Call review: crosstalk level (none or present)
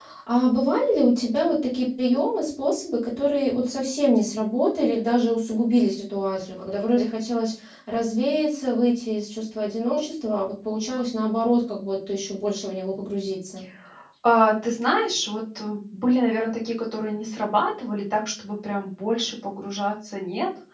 none